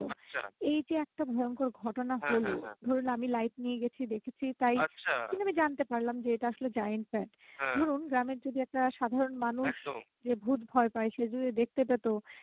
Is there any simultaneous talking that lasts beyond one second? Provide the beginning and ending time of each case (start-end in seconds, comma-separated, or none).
none